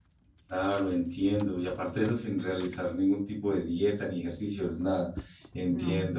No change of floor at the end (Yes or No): Yes